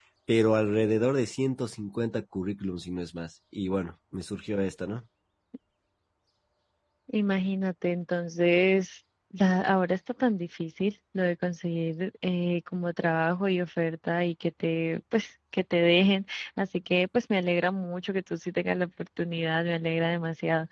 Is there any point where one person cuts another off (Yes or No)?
No